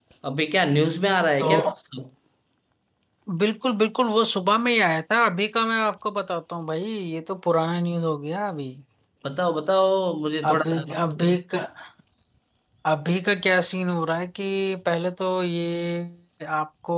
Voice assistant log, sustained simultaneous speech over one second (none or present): none